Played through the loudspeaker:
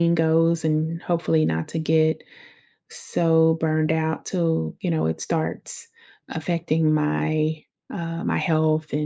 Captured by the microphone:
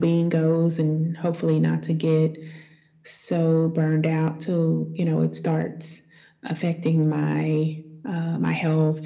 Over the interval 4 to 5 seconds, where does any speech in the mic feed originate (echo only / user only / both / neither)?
echo only